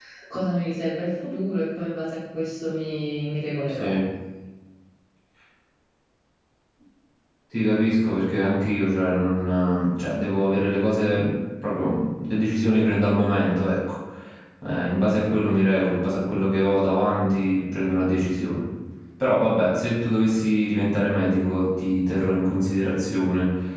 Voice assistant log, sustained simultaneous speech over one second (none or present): none